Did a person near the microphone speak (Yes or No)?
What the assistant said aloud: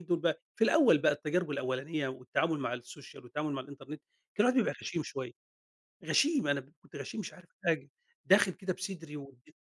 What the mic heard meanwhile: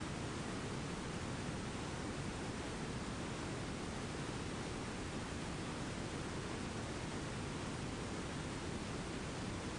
No